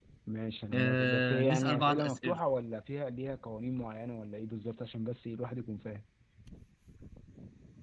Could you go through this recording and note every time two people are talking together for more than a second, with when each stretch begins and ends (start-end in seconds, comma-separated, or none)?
0.7-2.4